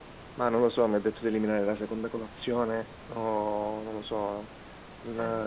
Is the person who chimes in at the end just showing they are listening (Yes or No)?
Yes